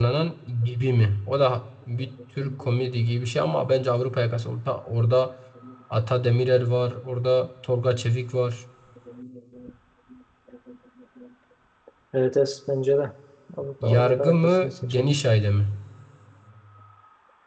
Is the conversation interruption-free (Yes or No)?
No